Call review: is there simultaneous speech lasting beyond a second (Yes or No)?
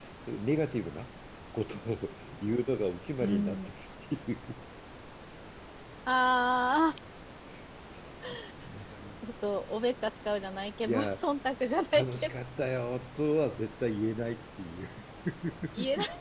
No